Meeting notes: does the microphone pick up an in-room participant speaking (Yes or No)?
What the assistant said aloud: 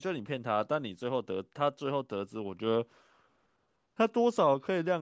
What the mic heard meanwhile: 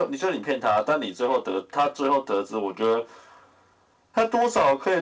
No